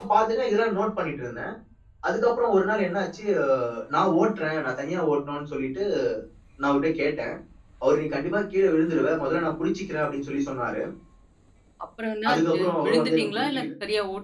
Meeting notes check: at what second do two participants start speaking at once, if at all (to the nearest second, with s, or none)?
12 s